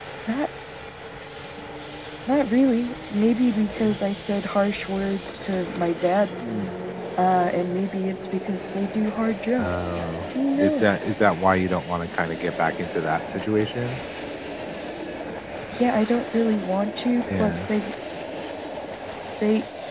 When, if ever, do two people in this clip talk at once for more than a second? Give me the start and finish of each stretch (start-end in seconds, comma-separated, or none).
none